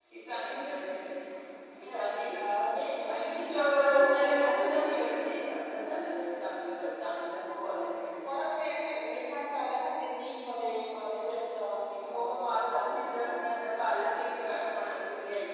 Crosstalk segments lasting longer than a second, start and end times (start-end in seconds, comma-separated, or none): 3.0-5.0, 12.1-13.4